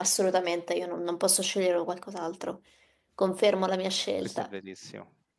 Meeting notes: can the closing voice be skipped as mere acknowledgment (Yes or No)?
No